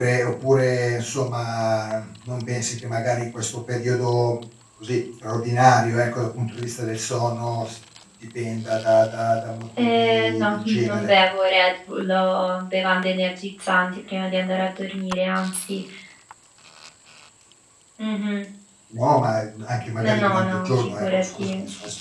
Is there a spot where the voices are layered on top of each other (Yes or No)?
Yes